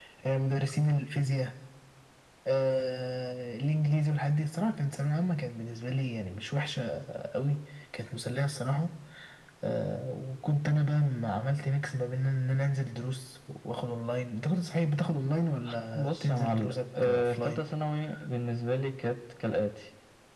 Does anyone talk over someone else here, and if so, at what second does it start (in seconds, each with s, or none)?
15.9 s